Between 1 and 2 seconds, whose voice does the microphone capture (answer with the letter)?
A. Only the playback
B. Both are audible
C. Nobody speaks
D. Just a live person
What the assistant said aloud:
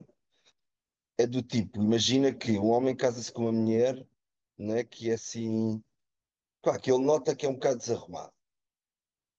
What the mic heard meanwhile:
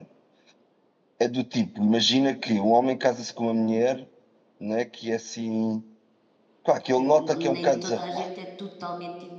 A